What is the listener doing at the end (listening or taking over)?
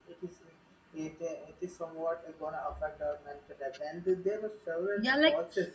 taking over